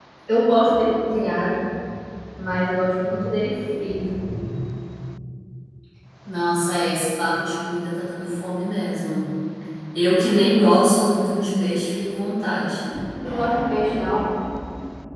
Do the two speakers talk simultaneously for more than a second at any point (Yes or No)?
No